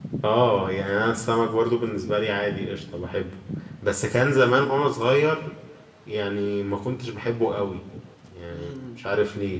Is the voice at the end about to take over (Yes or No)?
No